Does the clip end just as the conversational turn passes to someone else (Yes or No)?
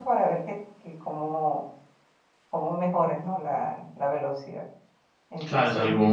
Yes